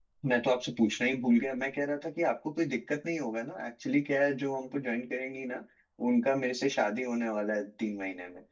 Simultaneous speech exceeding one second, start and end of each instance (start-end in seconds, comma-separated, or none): none